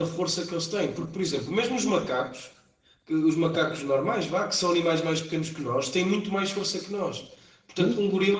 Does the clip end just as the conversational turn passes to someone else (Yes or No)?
No